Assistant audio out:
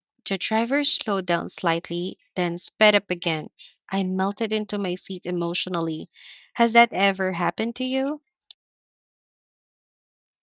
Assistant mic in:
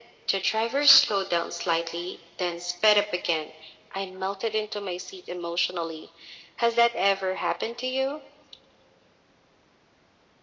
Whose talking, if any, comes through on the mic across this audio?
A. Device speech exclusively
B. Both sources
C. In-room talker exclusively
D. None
A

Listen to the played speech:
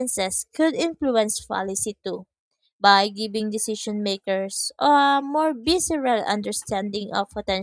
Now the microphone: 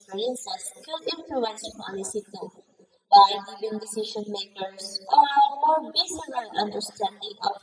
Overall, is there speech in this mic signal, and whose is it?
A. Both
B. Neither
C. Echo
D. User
C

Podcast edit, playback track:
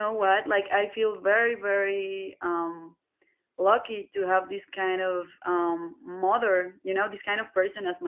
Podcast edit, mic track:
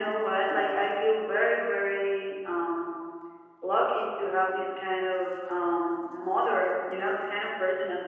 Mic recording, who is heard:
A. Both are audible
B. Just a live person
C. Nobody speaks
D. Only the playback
D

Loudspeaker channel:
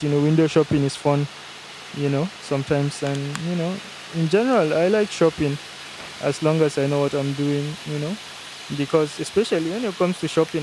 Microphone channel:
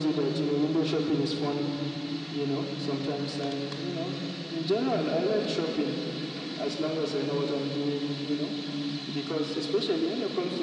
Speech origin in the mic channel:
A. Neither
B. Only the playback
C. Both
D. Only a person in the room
B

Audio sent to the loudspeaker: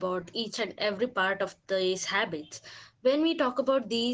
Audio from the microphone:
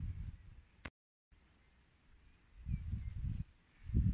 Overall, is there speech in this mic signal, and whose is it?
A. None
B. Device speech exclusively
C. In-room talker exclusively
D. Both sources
A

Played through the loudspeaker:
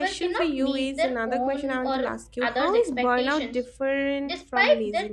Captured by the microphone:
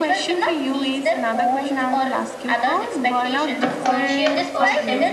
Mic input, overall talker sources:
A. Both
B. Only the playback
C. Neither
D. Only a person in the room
A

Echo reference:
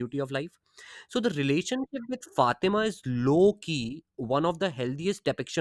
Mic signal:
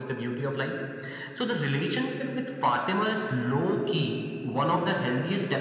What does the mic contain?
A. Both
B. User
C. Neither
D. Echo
D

